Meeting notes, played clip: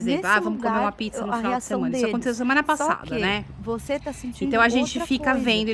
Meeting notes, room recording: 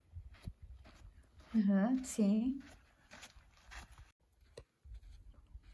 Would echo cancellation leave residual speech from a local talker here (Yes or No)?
Yes